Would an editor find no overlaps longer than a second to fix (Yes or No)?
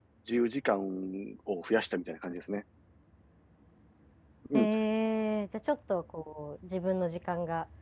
Yes